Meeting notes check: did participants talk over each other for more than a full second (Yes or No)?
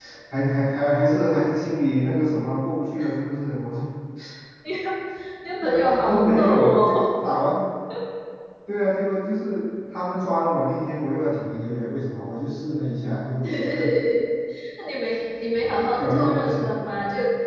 Yes